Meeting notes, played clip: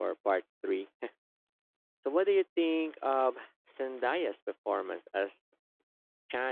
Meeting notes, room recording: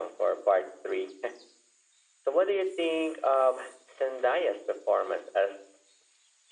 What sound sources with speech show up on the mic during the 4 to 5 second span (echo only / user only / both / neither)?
echo only